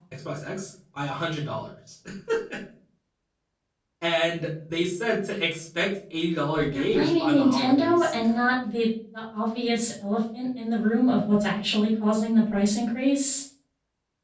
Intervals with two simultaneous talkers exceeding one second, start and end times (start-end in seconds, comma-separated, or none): 6.7-8.1